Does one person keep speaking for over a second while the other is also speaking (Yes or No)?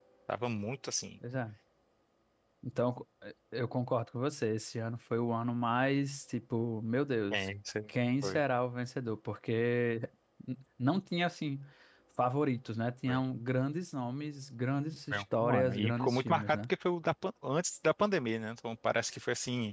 Yes